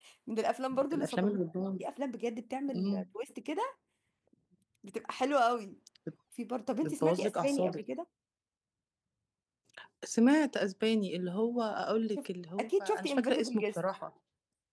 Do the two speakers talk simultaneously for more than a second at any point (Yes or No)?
Yes